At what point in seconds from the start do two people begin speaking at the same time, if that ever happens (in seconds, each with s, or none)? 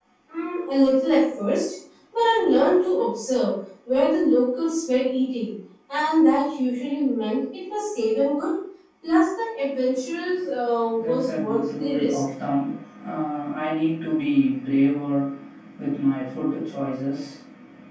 11.0 s